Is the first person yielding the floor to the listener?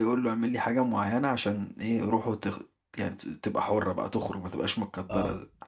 No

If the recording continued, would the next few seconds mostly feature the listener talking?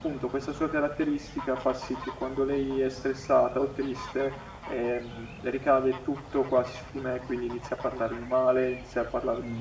Yes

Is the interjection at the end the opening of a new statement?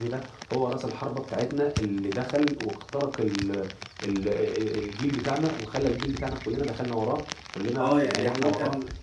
Yes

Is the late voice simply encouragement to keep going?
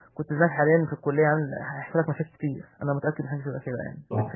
No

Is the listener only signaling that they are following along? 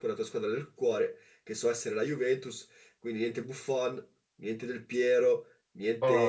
Yes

